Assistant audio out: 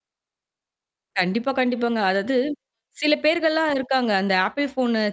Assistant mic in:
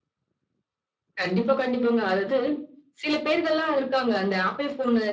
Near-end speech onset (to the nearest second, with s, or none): none